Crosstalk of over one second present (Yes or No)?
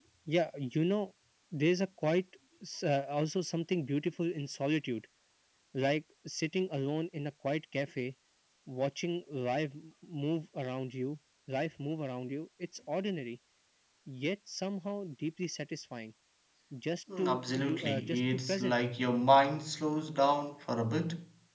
Yes